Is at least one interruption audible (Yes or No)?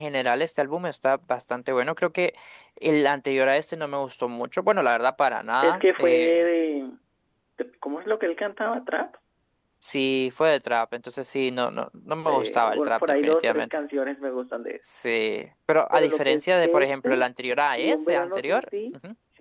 Yes